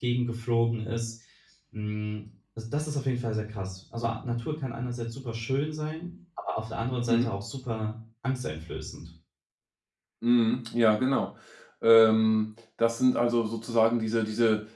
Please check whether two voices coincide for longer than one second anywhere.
No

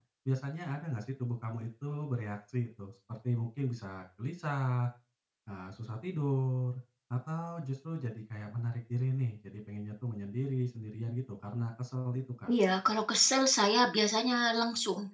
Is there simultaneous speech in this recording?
No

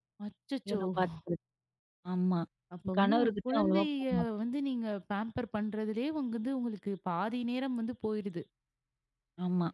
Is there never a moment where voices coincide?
No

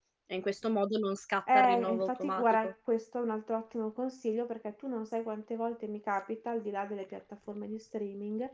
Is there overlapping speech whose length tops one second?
Yes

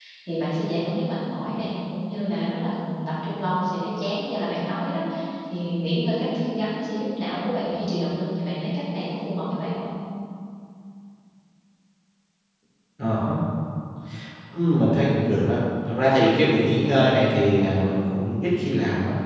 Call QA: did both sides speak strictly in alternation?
Yes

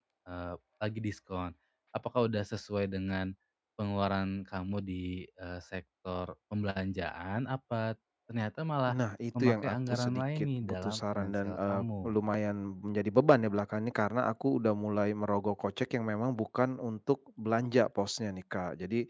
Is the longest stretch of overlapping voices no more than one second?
No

